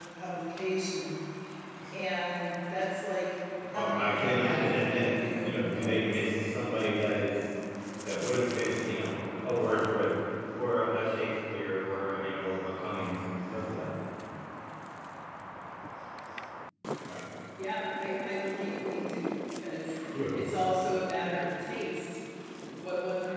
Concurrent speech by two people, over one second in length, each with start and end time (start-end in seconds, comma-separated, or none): 3.7-6.0